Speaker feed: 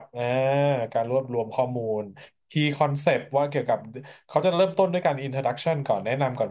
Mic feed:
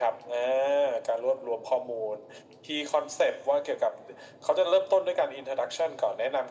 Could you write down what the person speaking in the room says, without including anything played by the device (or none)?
none